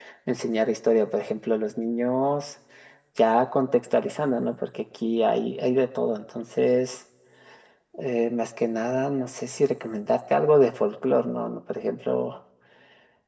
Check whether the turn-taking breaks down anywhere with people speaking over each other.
No

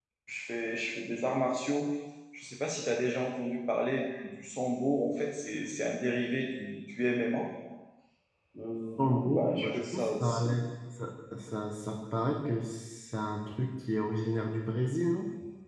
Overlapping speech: Yes, from 9.0 s

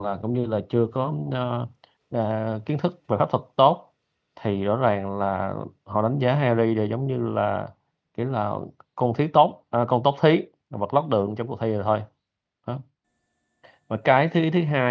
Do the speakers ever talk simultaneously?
No

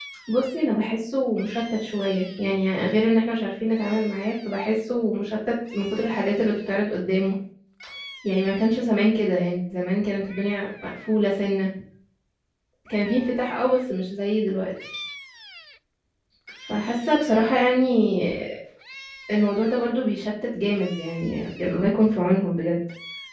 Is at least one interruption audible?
No

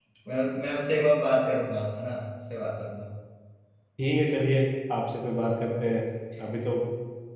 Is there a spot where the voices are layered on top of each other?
No

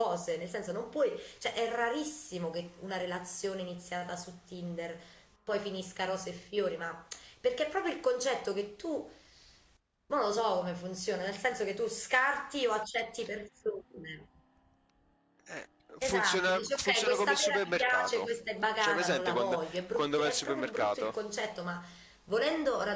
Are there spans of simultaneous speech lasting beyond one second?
Yes, from 16.0 s

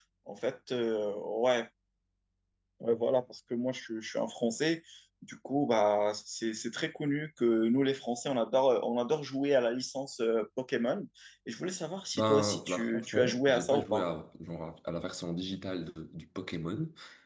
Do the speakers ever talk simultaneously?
Yes, from 12.2 s

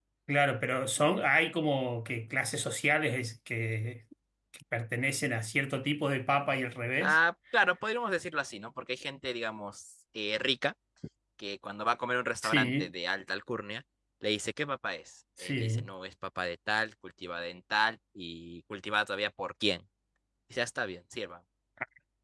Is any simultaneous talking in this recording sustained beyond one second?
No

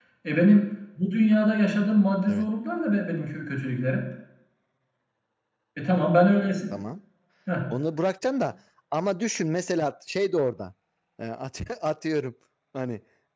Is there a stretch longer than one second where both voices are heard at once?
No

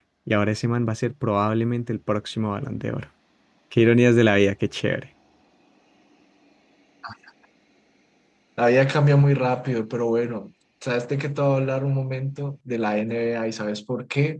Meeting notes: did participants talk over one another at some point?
No

